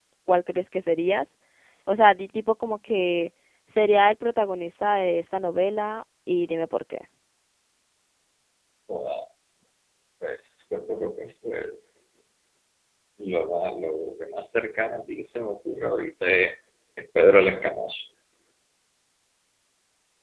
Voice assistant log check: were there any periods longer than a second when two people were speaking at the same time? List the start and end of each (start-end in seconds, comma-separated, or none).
none